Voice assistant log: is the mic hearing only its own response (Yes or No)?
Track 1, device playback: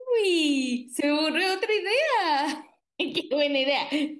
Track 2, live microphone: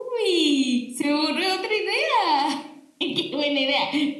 Yes